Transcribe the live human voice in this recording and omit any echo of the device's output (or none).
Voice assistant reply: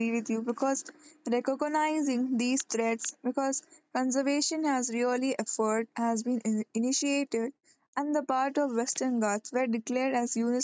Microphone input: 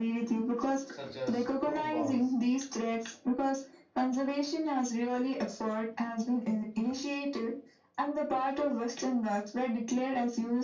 such as Kurumbas,